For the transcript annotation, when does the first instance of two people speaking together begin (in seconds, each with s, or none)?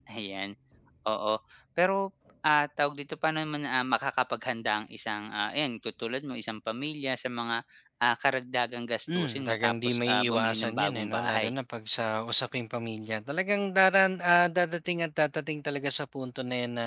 9.1 s